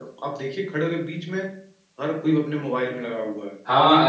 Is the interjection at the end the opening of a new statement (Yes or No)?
Yes